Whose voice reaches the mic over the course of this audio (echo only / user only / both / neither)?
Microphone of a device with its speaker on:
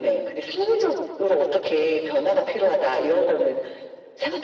echo only